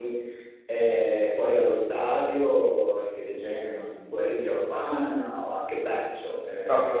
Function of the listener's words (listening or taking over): taking over